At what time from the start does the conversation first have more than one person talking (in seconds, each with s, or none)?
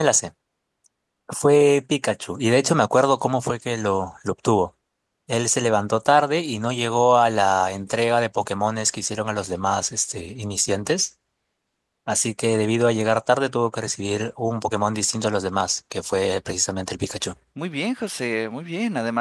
none